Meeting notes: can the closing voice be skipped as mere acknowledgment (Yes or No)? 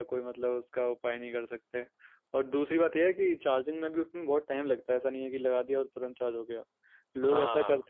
Yes